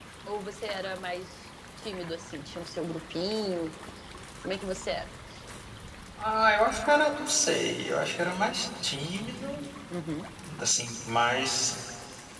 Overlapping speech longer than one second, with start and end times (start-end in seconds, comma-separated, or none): none